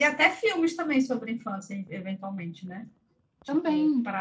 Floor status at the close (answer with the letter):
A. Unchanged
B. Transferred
A